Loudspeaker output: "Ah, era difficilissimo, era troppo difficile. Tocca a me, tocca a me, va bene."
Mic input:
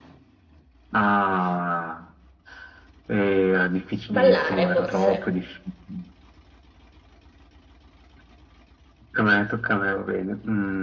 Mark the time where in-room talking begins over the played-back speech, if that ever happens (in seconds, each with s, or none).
4.1 s